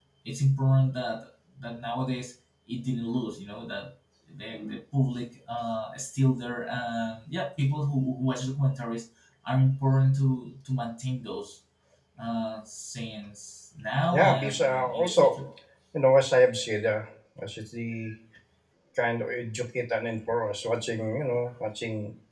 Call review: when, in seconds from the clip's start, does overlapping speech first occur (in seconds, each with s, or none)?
14.1 s